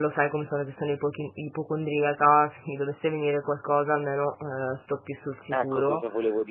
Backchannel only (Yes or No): No